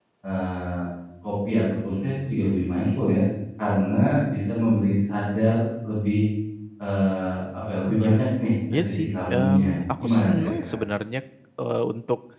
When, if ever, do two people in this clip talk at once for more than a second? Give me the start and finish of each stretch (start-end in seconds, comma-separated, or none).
8.7-10.8